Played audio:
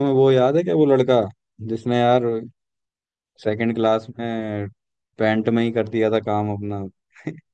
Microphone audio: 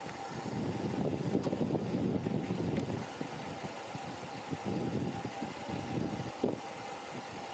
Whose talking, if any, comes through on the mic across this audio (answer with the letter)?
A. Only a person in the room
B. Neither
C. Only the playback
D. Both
B